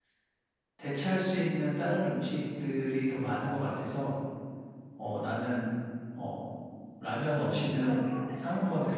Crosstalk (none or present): present